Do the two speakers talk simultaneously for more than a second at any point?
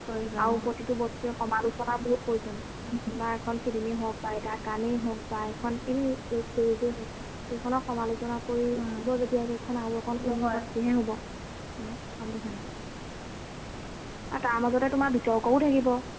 No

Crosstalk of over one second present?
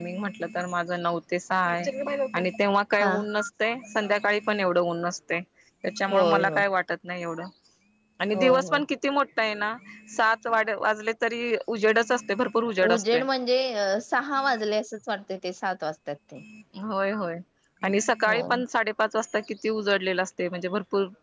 No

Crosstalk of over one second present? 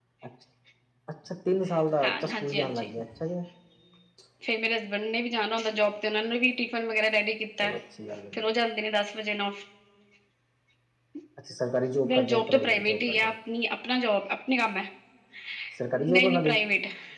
Yes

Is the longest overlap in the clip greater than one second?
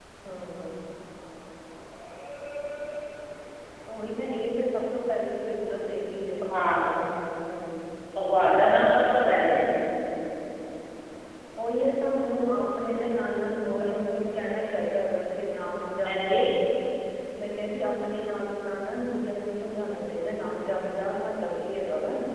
No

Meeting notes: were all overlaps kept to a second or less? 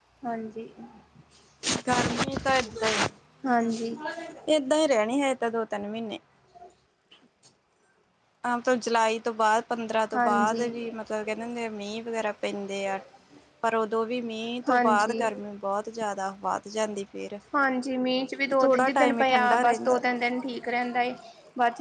No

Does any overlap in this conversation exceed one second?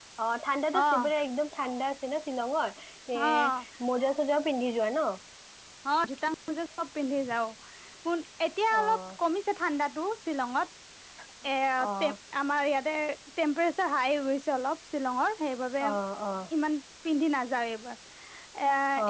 No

